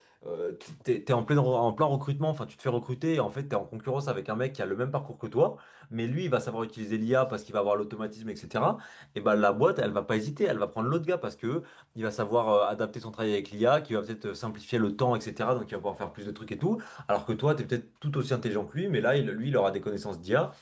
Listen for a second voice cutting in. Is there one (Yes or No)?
No